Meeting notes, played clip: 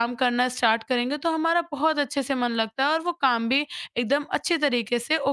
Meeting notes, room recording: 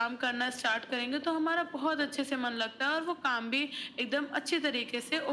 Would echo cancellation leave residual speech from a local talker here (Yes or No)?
No